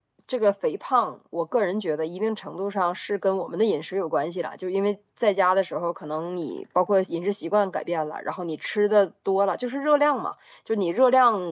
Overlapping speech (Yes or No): No